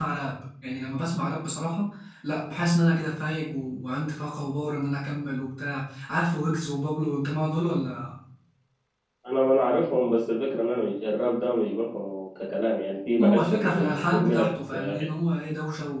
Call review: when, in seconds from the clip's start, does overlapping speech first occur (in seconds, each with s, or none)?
13.2 s